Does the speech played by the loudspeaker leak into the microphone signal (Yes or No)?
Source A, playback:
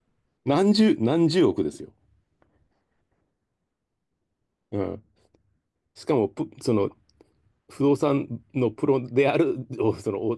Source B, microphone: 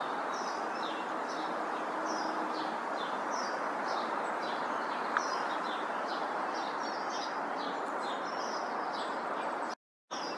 No